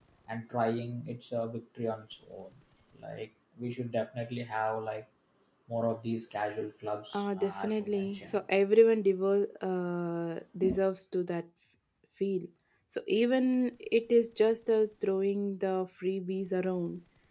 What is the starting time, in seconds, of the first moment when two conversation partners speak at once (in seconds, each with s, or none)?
7.1 s